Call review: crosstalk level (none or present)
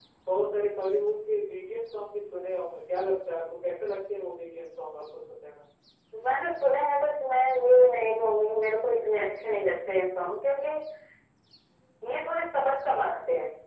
none